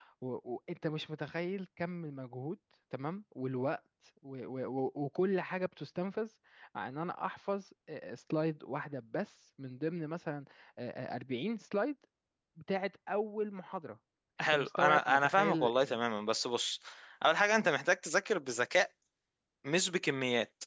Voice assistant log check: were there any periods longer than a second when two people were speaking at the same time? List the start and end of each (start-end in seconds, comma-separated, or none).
14.4-16.0